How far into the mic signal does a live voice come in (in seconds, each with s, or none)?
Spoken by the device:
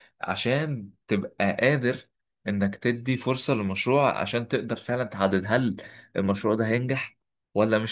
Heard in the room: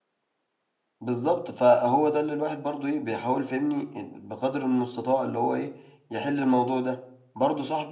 1.0 s